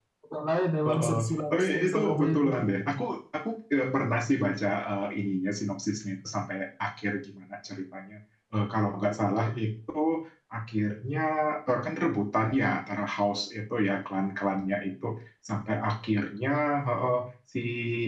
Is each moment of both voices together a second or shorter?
No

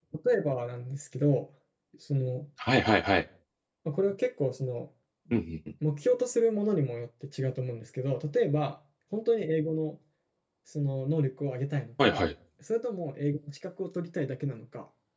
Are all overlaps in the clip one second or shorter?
Yes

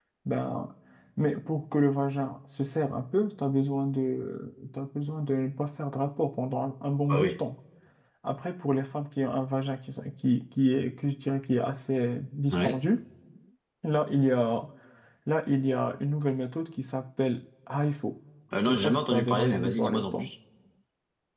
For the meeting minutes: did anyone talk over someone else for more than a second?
Yes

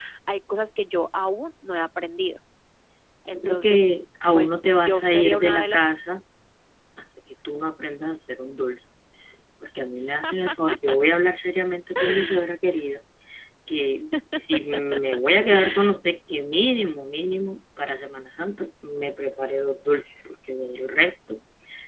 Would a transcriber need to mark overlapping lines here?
Yes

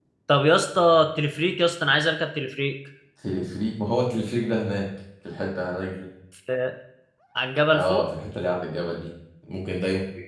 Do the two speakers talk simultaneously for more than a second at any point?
No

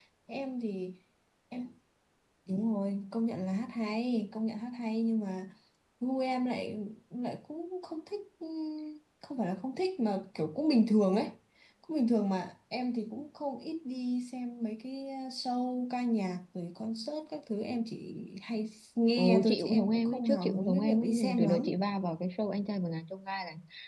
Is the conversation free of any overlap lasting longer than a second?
No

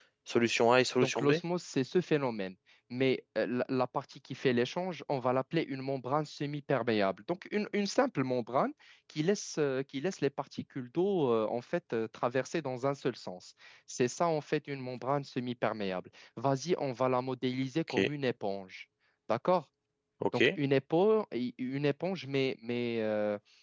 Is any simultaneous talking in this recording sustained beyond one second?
No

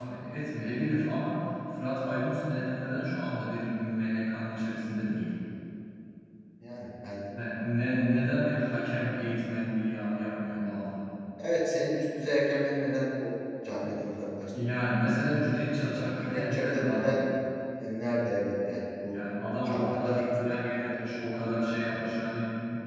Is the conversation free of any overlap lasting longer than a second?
No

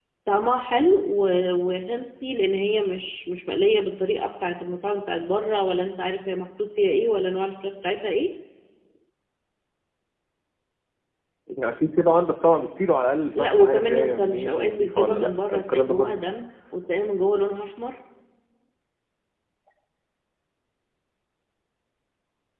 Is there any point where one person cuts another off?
Yes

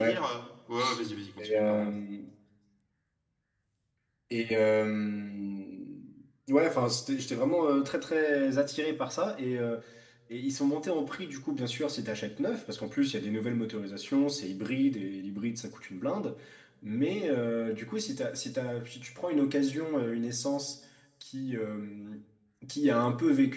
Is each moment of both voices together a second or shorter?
Yes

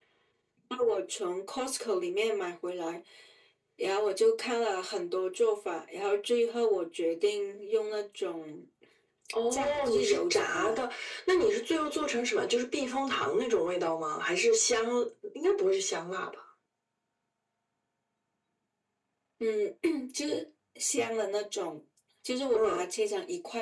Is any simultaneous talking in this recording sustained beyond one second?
Yes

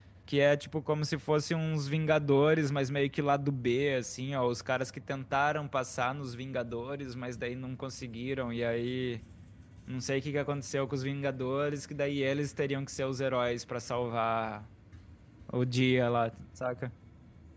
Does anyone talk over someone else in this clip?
No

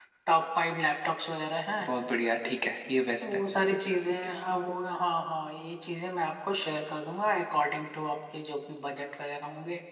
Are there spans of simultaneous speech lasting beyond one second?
No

